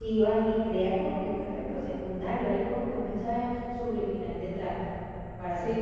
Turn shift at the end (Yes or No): Yes